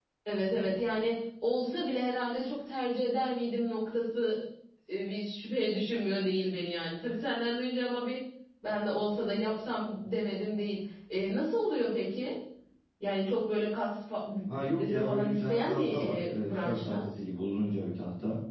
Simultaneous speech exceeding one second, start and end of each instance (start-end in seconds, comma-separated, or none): 14.5-17.0